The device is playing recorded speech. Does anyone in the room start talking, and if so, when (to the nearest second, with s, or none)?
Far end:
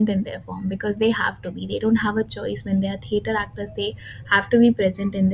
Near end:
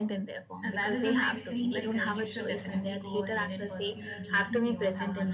1 s